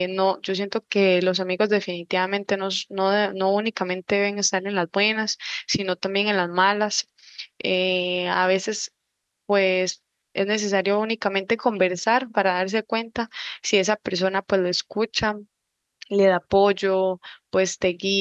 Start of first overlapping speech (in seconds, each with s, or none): none